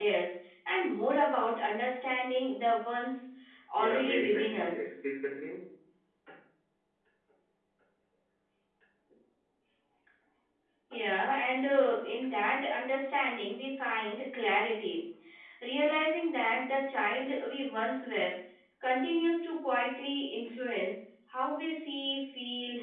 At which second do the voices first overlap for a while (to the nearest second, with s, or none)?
4 s